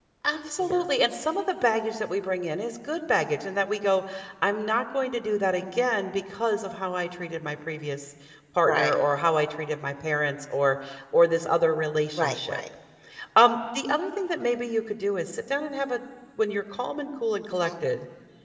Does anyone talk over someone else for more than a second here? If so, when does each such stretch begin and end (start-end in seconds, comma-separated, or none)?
none